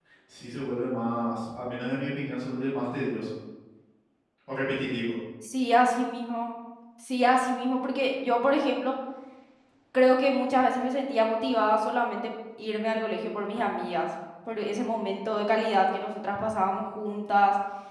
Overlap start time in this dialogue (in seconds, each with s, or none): none